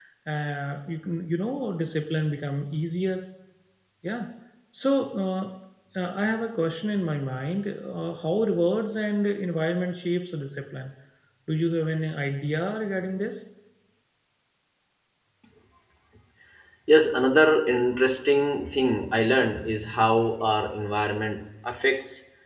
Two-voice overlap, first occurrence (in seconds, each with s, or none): none